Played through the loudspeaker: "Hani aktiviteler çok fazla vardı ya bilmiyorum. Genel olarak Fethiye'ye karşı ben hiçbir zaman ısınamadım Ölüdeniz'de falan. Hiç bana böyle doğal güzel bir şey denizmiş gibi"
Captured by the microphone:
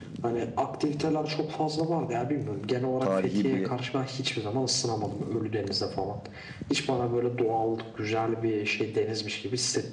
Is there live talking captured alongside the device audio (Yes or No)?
Yes